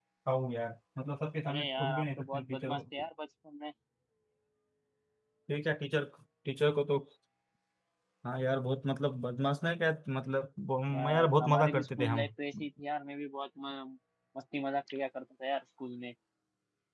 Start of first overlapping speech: 1.5 s

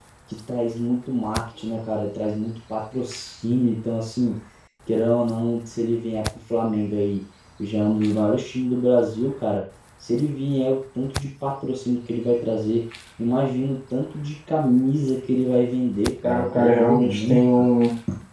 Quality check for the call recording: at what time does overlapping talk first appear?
16.2 s

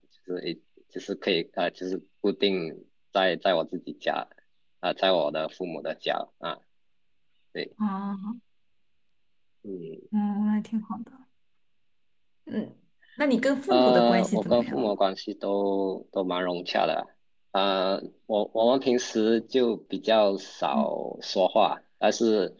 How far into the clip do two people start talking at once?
13.7 s

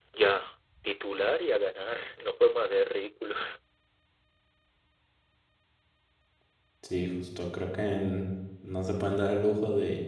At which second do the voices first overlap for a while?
none

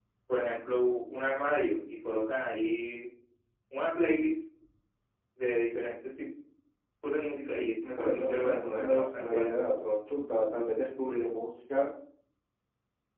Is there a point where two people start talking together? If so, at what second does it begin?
7.9 s

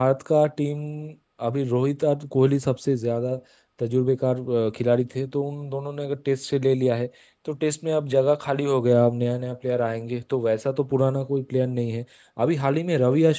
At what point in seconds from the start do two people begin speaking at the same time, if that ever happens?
none

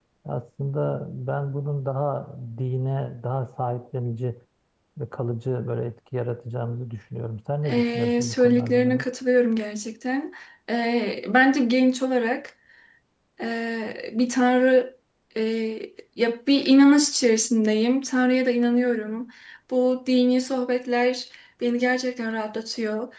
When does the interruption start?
7.6 s

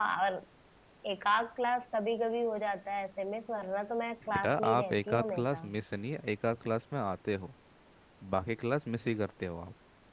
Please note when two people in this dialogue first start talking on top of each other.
4.3 s

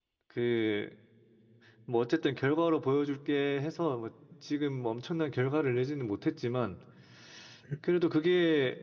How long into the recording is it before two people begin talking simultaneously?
none

